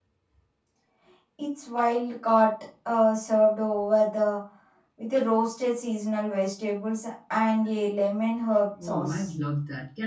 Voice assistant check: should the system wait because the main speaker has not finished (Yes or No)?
No